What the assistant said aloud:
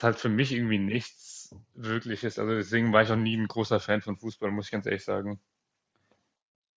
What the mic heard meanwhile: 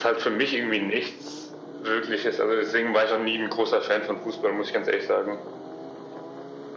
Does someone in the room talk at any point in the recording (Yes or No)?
No